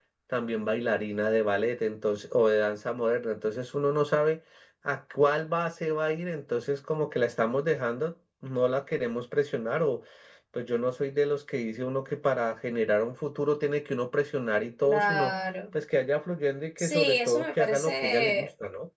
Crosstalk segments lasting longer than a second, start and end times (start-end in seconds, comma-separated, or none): 16.8-18.5